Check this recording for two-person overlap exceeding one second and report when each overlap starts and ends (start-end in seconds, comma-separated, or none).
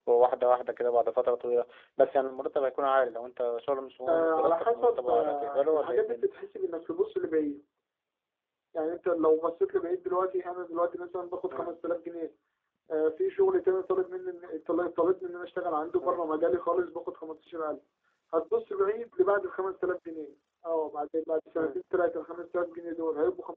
4.1-6.3